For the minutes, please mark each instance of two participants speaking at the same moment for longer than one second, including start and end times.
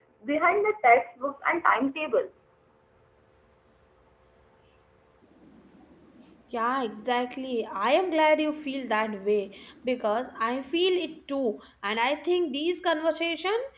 none

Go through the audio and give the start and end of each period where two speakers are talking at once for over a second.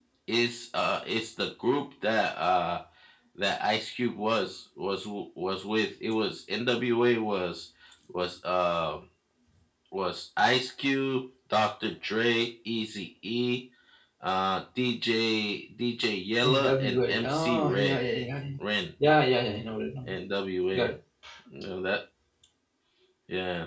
16.6-18.0

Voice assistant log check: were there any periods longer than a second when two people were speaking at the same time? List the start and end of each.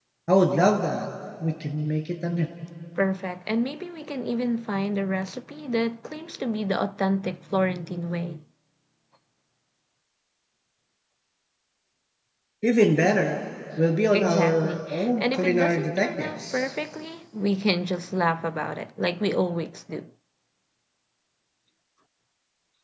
14.1-16.7

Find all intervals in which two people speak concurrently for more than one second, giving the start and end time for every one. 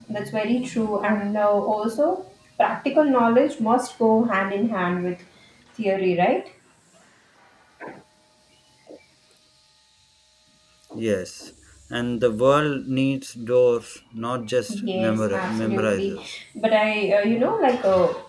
14.9-16.2

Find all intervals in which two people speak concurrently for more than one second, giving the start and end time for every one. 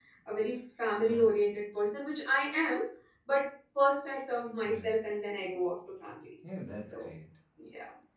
none

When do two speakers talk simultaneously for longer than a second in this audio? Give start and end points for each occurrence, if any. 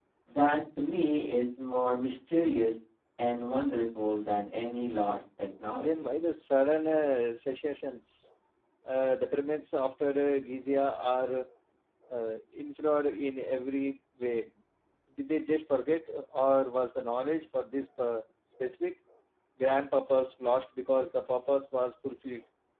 none

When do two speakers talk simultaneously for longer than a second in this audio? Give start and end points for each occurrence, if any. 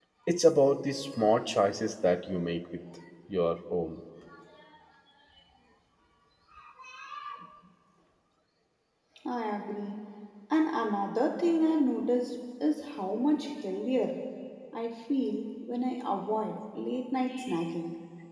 none

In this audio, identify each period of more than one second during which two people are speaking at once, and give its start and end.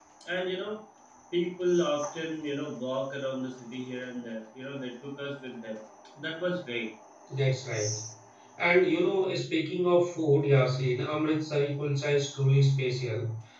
none

